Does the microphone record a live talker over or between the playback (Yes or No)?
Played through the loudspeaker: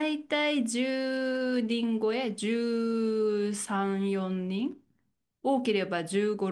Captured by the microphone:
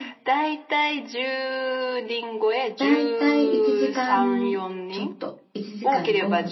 Yes